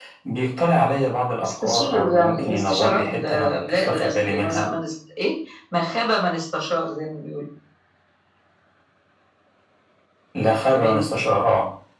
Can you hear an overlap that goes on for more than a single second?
Yes, from 1.4 s

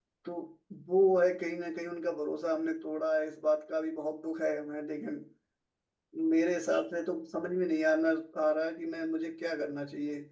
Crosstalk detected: No

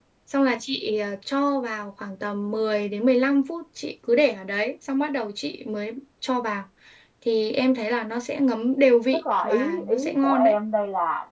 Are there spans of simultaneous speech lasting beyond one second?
Yes, from 9.1 s

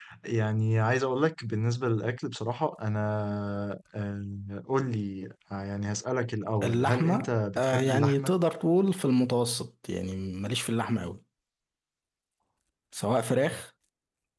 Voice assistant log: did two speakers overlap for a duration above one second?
Yes, from 6.6 s

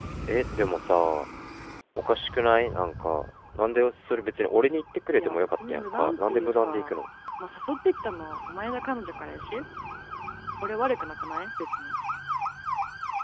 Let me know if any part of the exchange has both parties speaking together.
Yes, from 5.1 s

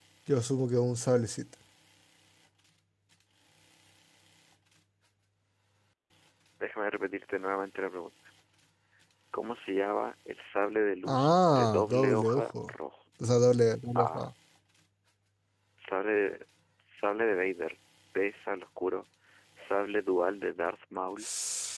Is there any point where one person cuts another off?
Yes, from 11.0 s

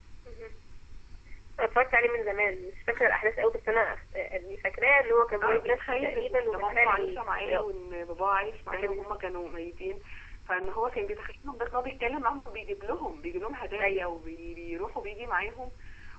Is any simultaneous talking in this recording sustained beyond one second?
Yes, from 5.4 s

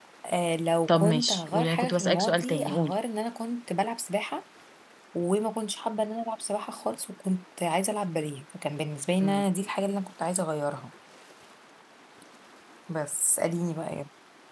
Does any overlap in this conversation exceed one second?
Yes, from 0.9 s

